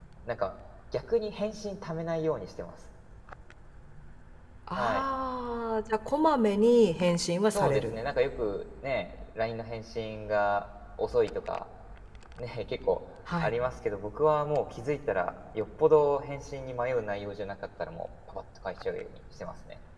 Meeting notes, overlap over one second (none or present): none